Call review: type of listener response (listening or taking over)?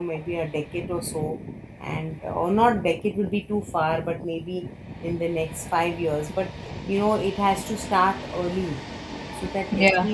listening